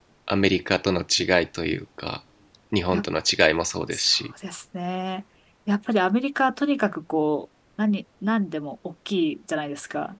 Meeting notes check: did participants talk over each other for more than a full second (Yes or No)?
No